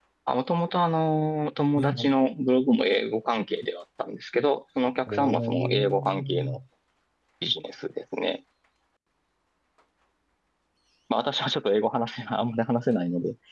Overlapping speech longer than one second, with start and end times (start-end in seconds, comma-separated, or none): 5.1-6.6